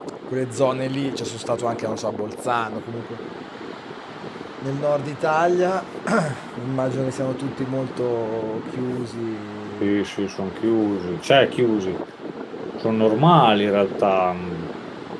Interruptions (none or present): none